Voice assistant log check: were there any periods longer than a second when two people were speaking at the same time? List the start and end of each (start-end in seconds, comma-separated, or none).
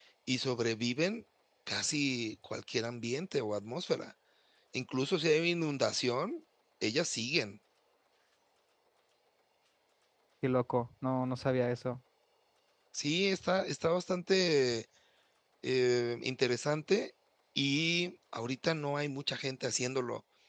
none